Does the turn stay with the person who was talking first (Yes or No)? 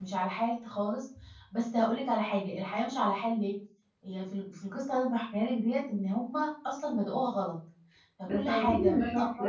No